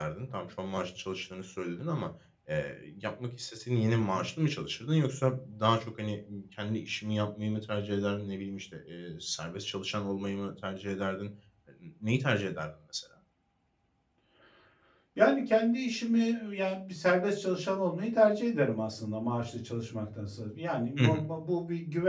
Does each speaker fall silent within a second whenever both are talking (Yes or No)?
Yes